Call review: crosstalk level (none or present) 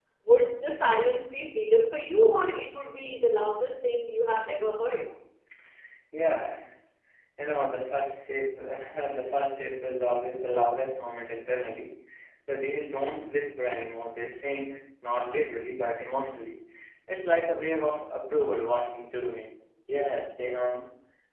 none